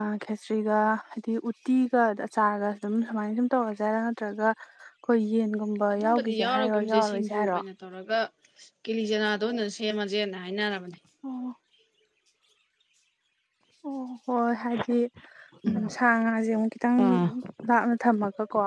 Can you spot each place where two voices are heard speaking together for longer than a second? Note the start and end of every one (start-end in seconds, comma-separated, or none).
6.0-7.6